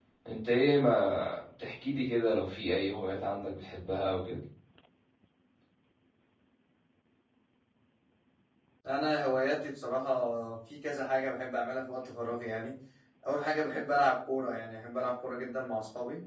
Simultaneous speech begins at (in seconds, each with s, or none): none